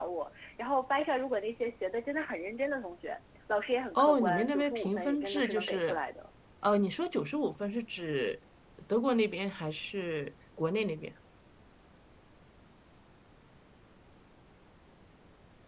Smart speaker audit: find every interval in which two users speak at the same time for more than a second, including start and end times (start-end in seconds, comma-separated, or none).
4.0-6.0